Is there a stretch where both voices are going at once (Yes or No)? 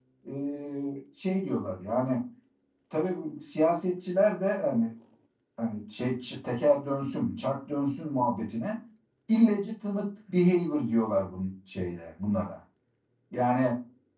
No